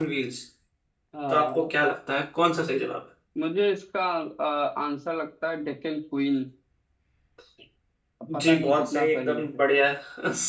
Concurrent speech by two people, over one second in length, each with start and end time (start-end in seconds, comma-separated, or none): 8.4-9.6